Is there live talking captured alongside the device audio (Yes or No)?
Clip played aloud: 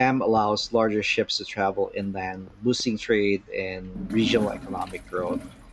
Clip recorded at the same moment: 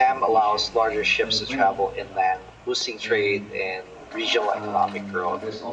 Yes